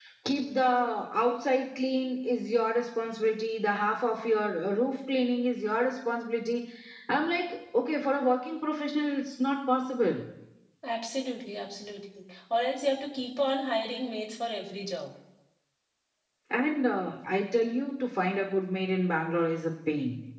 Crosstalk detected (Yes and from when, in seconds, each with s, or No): No